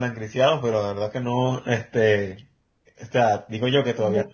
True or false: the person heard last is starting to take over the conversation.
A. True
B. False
B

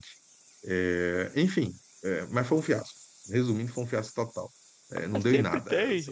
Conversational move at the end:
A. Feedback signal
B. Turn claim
B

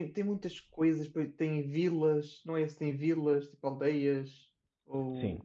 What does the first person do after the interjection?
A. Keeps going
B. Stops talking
B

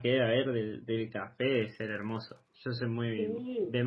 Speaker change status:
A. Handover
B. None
A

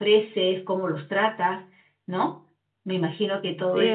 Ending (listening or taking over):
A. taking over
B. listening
A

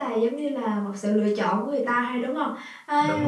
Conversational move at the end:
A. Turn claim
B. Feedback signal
B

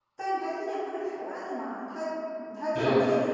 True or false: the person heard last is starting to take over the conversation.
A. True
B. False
B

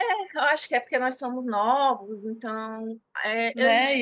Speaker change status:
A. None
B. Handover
B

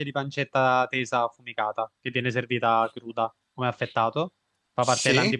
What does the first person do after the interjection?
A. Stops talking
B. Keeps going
B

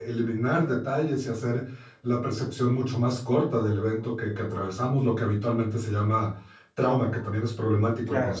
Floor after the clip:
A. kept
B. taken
A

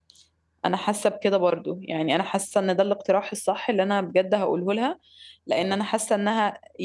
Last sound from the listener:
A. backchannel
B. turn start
A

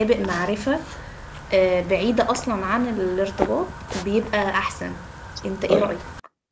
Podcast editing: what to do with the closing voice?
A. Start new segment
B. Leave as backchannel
A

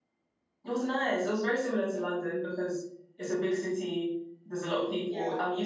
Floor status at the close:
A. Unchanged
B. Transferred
A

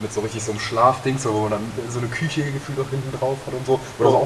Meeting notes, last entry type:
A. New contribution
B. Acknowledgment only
B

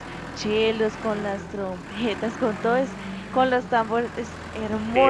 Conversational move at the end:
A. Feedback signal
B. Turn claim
B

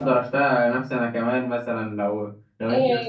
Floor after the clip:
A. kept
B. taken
B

